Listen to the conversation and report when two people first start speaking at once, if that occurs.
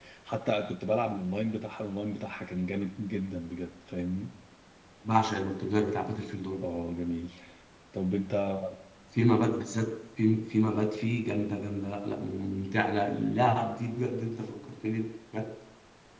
none

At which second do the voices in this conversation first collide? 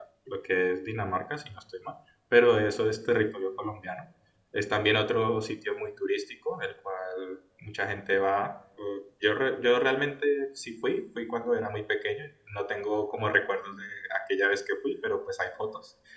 none

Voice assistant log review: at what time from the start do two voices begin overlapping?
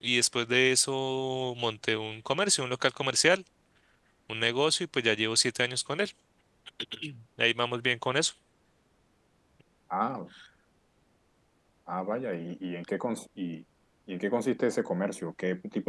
none

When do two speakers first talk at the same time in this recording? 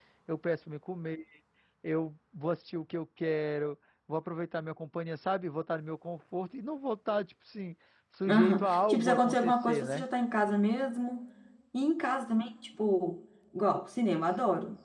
8 s

